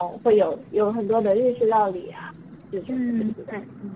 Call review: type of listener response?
taking over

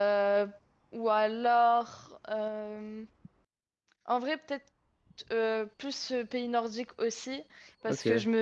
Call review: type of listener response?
listening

